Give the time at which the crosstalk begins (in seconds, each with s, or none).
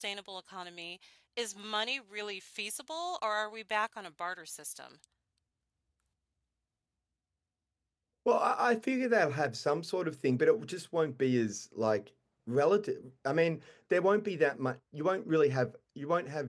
none